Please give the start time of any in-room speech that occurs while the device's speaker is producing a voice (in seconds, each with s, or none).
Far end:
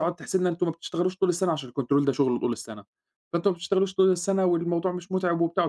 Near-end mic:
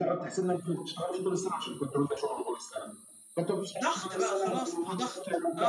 3.8 s